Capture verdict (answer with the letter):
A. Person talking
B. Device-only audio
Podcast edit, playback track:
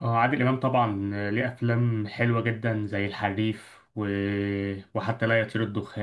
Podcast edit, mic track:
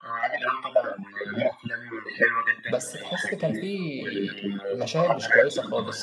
A